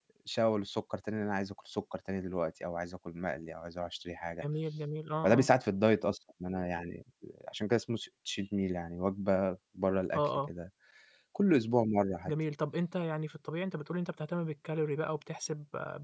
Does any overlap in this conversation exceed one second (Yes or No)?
No